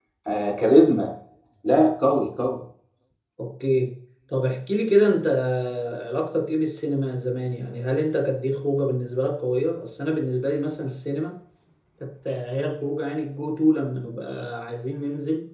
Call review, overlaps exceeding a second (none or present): none